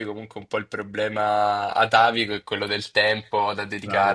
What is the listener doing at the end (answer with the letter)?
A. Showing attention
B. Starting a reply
B